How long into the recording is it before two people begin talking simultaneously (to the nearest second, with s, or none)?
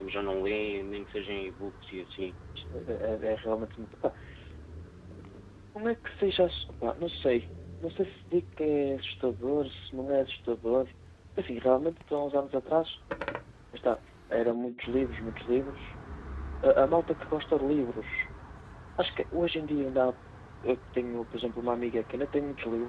none